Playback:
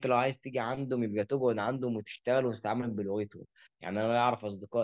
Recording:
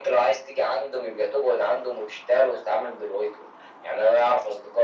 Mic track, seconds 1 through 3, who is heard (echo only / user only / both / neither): echo only